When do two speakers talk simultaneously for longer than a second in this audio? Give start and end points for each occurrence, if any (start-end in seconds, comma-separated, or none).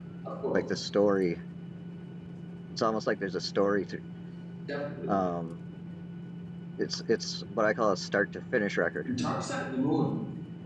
none